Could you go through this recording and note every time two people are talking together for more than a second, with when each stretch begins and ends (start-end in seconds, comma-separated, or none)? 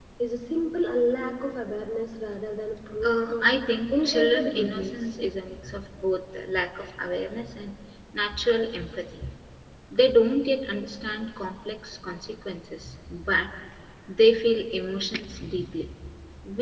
3.9-5.1